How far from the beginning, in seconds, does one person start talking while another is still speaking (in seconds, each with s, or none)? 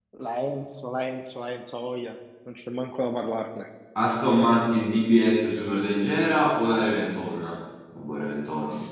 none